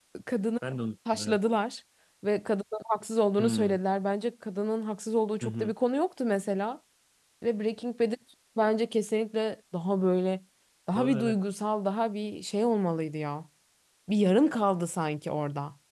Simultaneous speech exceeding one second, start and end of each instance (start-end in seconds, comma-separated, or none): none